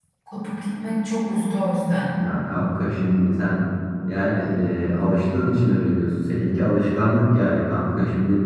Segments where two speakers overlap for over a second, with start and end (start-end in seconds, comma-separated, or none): none